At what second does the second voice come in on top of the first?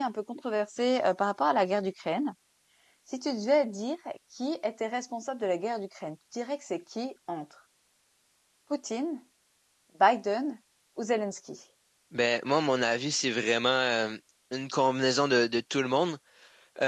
none

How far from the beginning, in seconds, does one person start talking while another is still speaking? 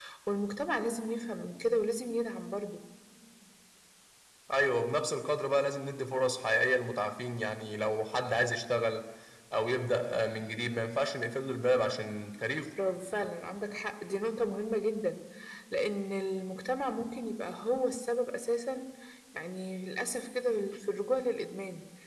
none

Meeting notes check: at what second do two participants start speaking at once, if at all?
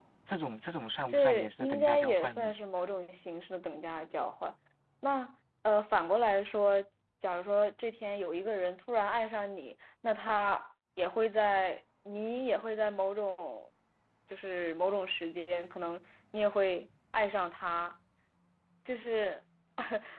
1 s

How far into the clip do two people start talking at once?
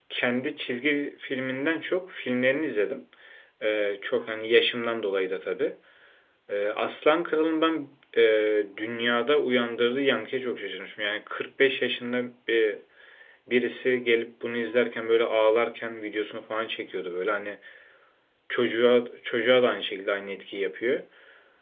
none

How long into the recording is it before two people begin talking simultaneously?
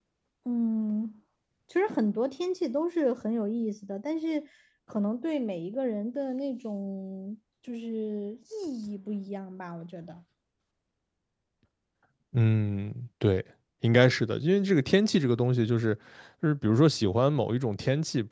none

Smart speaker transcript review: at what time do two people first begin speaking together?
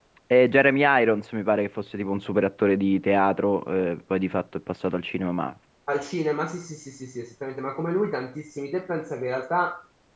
none

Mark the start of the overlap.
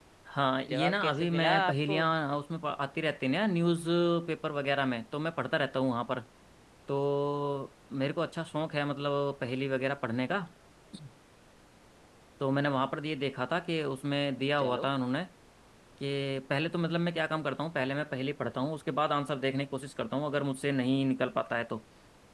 1 s

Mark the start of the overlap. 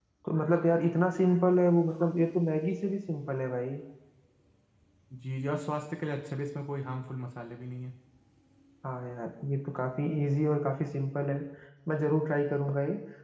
none

